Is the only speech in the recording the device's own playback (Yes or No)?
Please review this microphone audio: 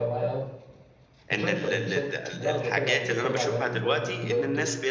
No